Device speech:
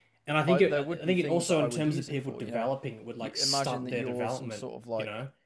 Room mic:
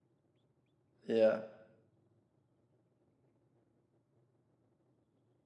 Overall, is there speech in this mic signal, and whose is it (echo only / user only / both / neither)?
user only